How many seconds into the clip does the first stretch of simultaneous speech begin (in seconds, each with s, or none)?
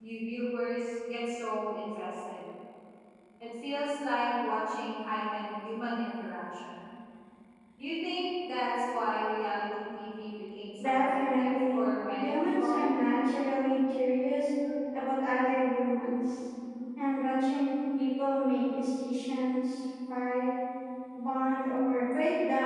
10.8 s